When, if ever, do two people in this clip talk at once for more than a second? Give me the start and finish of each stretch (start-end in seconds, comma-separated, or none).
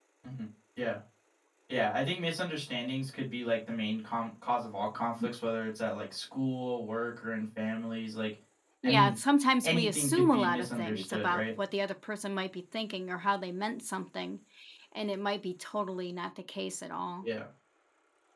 9.6-11.5